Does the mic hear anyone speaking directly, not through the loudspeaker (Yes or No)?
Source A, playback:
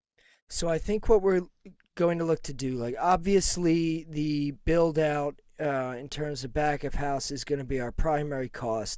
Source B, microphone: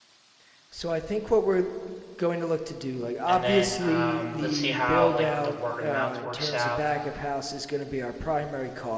Yes